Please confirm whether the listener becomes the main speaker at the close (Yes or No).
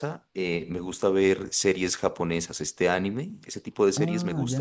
Yes